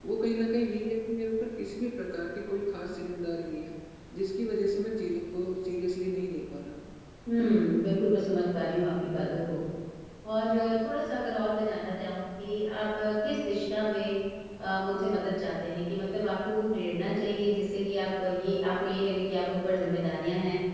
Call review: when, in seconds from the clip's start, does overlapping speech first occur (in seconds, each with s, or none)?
none